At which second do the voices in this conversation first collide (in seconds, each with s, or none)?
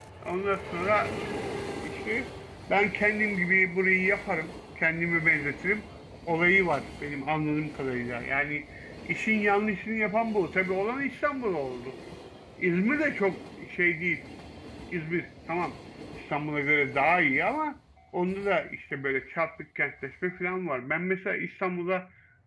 none